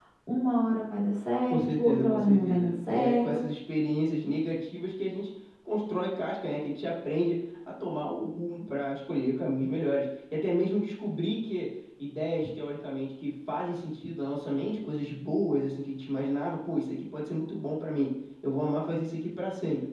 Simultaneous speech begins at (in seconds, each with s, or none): 1.5 s